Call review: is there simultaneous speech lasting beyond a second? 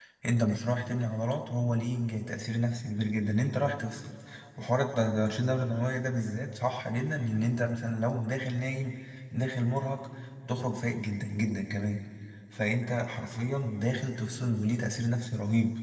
No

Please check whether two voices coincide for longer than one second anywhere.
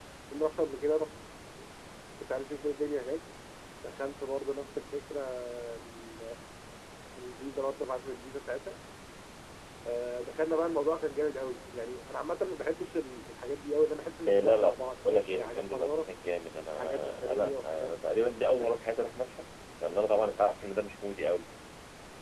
Yes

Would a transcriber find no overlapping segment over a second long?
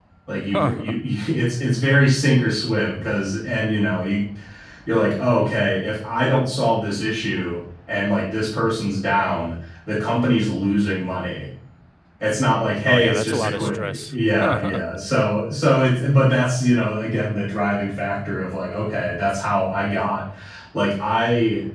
No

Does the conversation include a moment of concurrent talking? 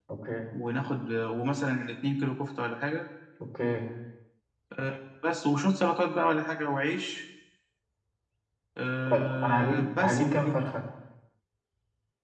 Yes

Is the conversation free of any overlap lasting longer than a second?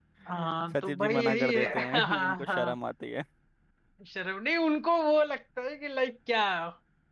No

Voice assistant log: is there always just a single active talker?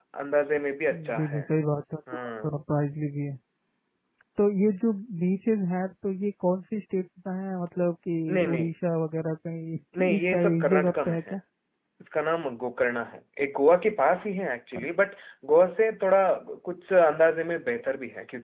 No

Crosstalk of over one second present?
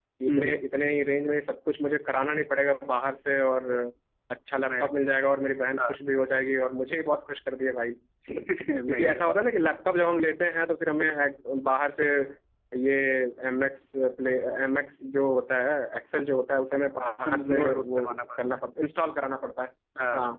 Yes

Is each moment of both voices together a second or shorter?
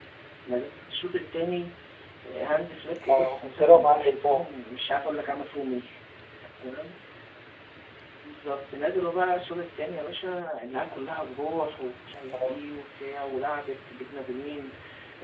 No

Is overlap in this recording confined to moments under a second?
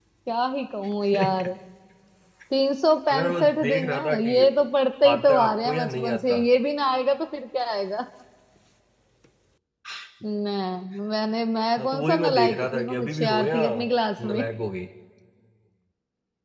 No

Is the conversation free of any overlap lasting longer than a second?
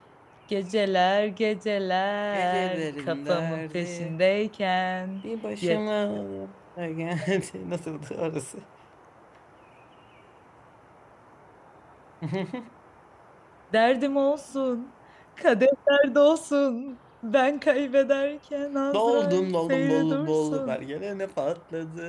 No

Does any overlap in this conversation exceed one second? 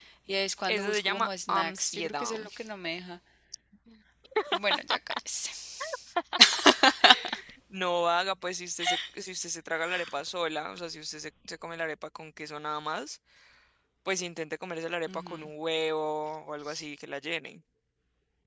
Yes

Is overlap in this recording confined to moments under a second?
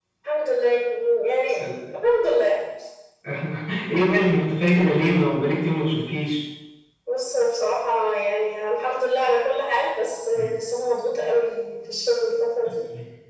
Yes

